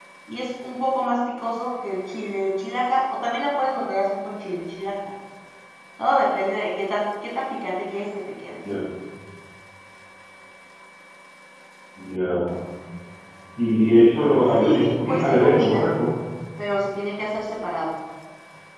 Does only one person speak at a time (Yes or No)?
No